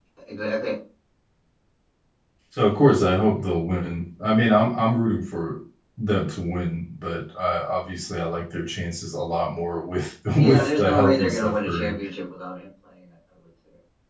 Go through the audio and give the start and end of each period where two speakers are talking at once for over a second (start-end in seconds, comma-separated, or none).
10.3-11.9